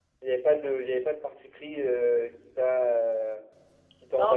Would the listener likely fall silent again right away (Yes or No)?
No